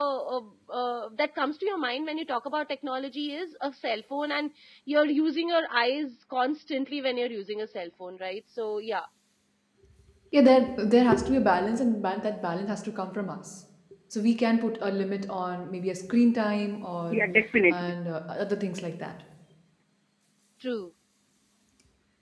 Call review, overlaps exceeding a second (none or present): none